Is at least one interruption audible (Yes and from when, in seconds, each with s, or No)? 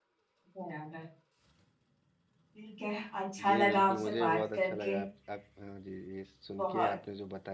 Yes, from 3.4 s